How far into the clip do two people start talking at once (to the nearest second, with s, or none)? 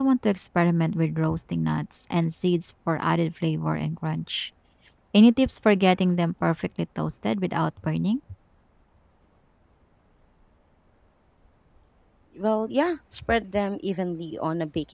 none